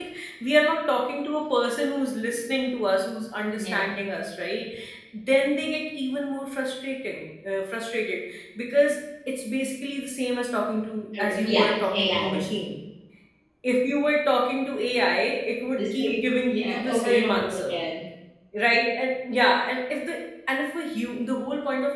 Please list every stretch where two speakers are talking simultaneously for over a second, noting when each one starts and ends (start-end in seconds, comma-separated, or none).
11.2-12.4, 15.8-17.8